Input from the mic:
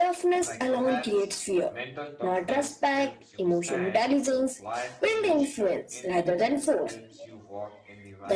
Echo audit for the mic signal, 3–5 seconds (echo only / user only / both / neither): both